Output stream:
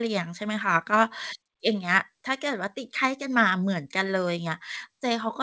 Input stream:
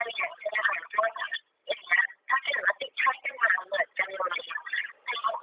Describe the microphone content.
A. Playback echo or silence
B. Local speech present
A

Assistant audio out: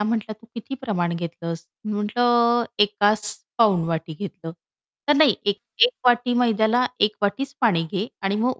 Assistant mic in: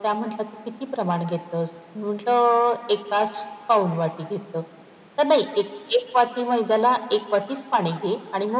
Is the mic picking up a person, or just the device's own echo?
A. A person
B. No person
B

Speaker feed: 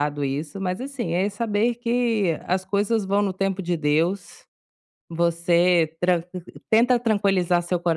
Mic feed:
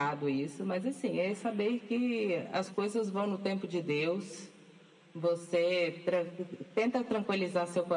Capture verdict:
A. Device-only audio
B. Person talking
A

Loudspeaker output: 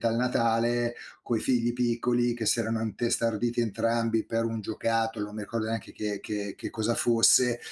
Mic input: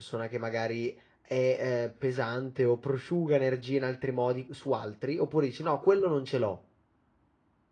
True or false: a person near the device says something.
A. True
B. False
A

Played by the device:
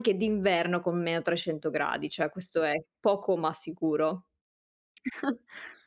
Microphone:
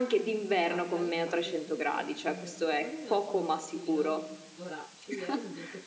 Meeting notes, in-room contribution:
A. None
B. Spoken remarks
B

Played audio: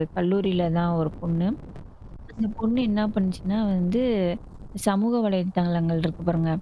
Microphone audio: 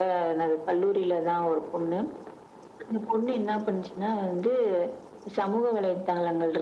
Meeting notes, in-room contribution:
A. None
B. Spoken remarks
A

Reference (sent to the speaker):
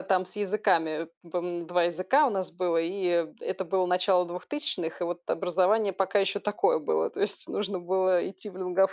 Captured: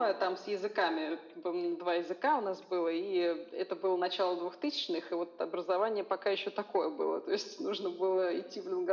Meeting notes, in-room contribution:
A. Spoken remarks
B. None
B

